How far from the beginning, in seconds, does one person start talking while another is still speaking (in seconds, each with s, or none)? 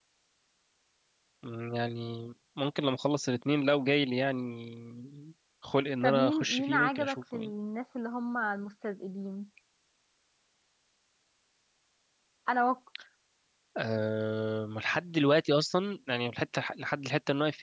6.0 s